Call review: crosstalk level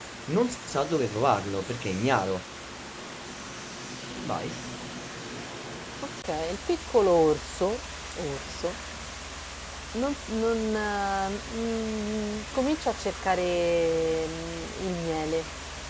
none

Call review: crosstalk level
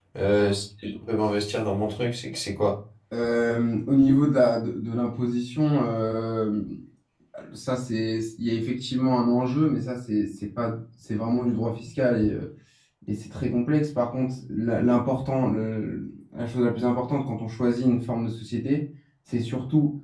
none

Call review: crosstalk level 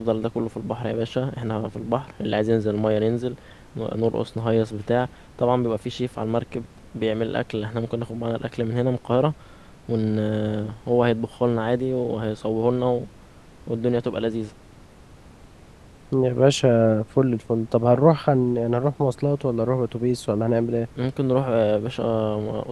none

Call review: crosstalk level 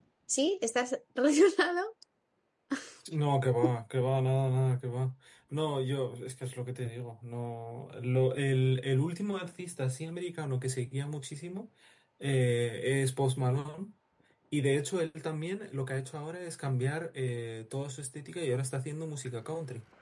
none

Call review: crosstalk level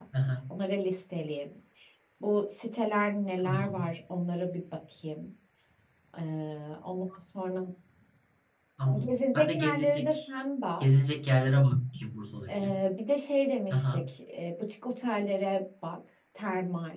present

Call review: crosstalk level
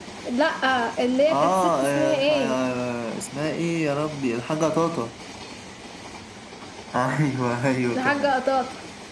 present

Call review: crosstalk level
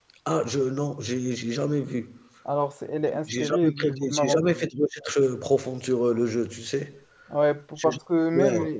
present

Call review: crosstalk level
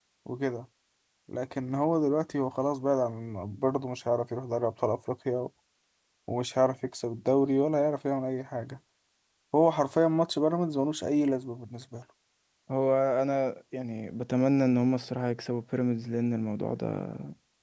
none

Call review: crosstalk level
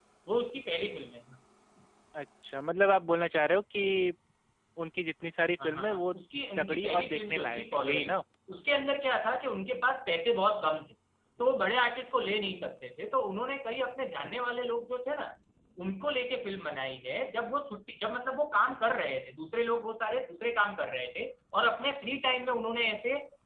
present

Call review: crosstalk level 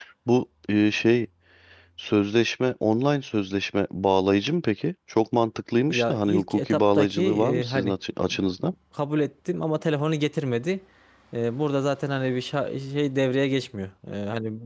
present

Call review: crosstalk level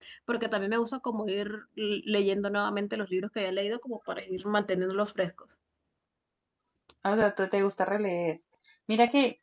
none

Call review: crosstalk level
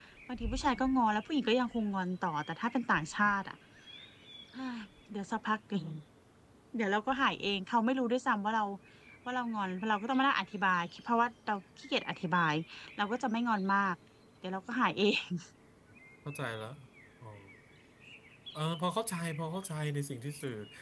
none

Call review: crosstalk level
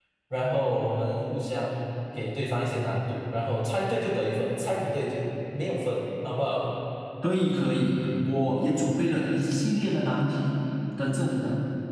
none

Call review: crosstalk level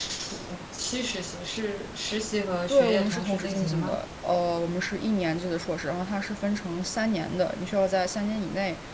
present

